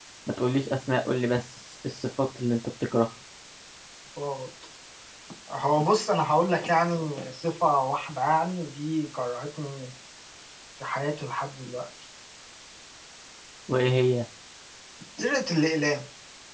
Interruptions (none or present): none